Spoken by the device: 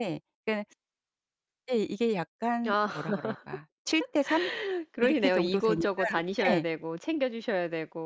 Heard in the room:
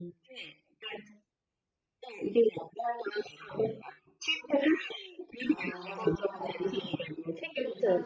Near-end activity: present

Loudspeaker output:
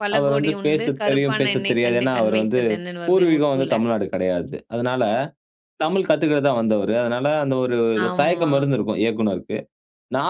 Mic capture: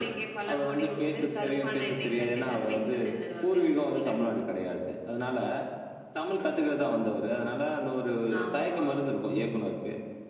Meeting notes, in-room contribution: none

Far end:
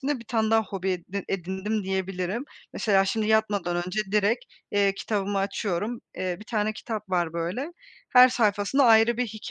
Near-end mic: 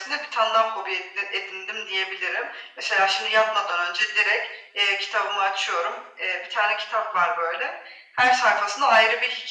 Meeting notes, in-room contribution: none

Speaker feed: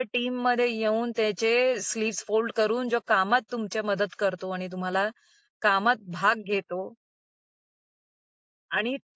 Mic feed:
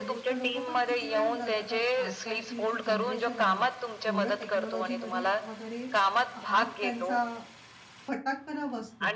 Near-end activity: present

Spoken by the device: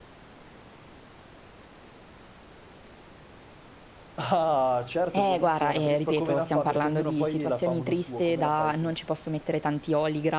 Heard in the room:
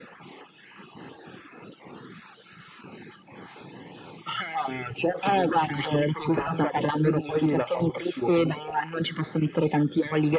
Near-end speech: none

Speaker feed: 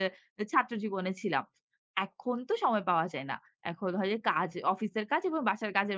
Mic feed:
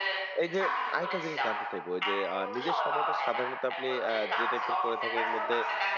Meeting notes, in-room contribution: present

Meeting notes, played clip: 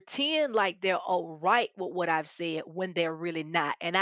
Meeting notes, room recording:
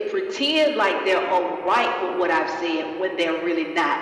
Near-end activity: none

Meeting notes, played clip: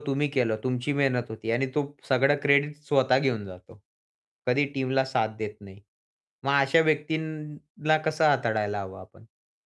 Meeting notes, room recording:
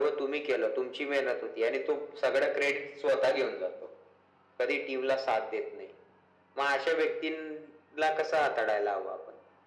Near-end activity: none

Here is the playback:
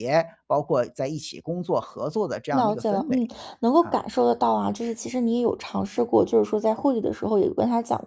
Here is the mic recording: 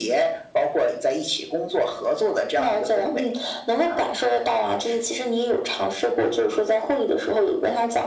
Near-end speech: none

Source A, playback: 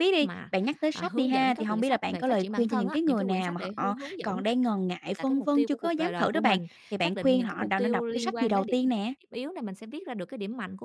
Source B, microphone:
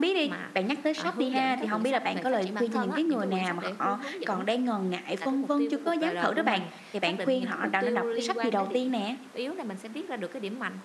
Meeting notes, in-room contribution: none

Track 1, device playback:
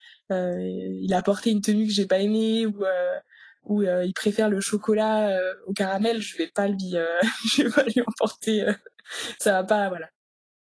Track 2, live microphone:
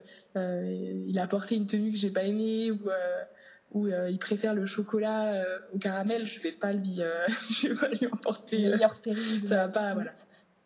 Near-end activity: present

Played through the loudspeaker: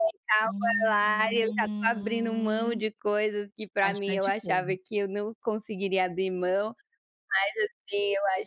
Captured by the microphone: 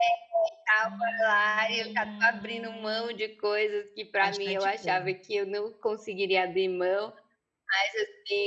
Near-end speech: none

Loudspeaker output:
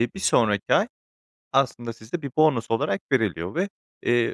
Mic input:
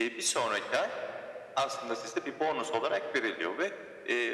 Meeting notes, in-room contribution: none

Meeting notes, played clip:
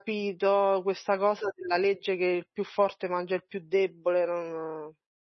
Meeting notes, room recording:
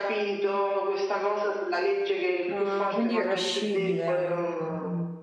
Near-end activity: present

